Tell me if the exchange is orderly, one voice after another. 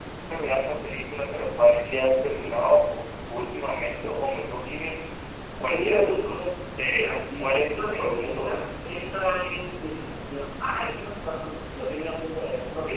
No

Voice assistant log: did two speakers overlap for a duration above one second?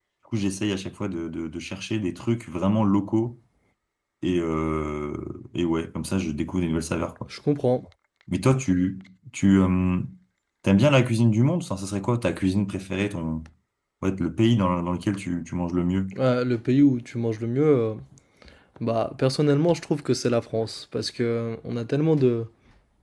No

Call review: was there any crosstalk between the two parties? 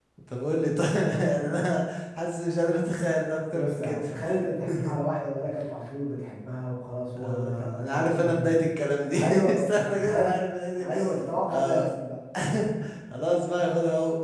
Yes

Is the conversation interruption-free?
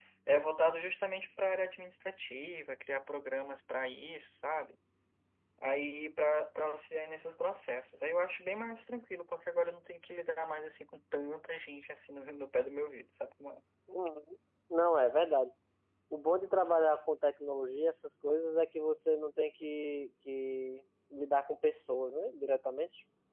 Yes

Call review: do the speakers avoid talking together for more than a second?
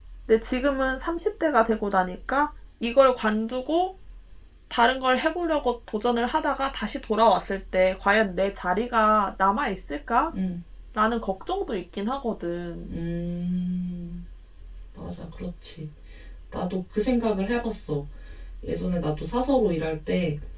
Yes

